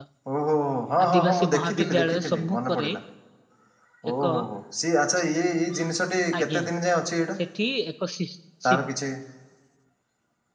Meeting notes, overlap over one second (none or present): present